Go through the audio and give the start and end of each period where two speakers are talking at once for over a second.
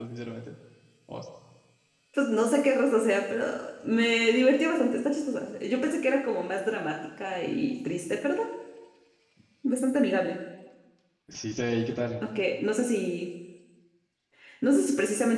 none

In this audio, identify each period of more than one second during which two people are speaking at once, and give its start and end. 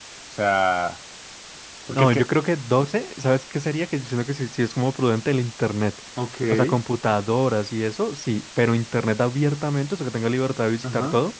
none

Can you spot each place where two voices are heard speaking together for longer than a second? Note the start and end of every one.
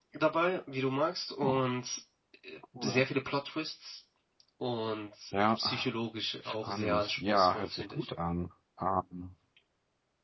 6.4-8.1

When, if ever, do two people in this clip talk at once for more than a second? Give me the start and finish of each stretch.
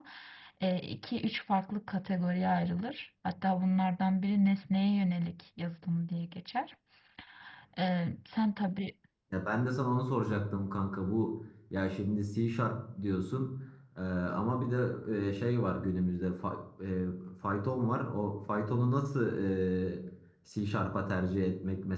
none

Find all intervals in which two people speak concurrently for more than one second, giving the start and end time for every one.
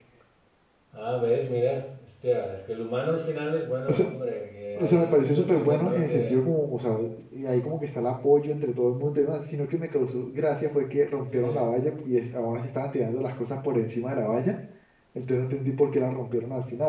4.8-6.4

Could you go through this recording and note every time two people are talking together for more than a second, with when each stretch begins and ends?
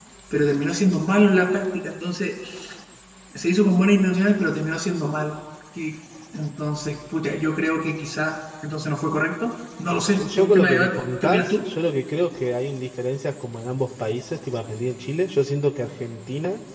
10.1-11.7

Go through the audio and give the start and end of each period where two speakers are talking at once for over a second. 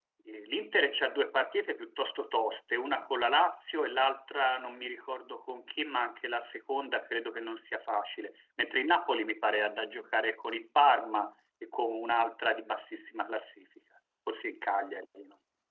none

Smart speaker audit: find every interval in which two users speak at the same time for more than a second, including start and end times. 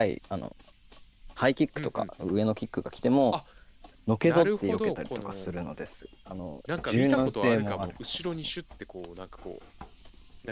4.2-5.5, 6.8-8.3

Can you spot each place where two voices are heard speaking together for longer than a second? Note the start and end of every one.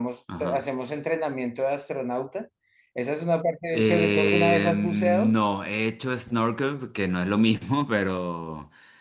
3.7-5.3

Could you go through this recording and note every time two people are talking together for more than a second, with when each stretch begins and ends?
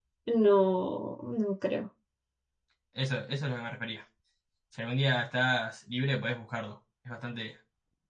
none

